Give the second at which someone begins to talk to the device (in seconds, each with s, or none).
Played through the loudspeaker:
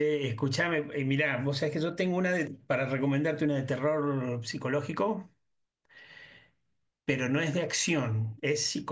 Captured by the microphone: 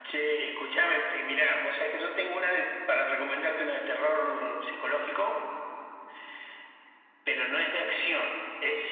none